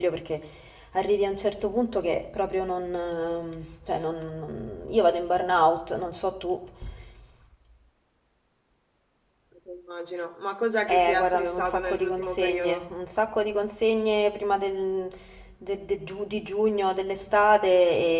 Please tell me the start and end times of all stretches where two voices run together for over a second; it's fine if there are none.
10.9-12.9

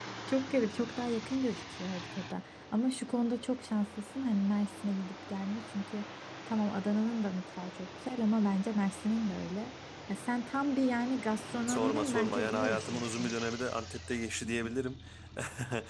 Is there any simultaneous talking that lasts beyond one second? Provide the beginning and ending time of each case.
11.7-13.3

